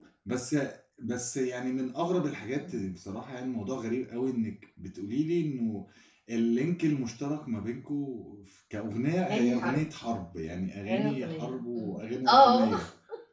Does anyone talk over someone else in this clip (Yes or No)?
Yes